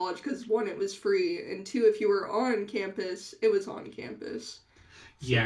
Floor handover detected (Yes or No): Yes